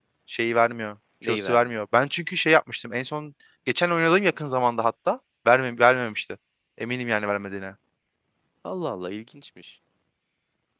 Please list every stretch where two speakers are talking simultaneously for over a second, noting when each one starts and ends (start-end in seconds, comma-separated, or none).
none